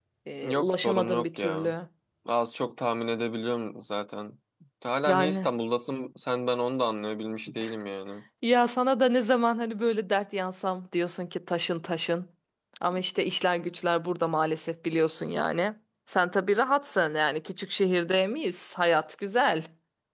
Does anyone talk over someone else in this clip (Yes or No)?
Yes